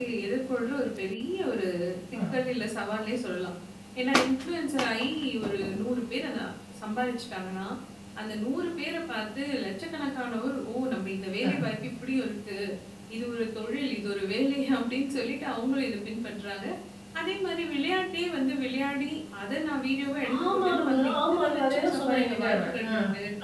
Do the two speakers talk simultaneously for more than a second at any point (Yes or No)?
Yes